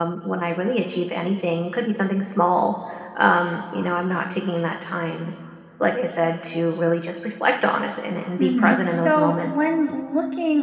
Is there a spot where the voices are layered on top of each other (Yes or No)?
Yes